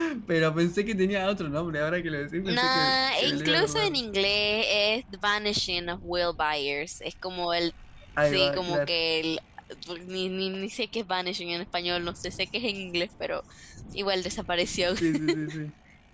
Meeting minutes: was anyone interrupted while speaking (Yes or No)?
Yes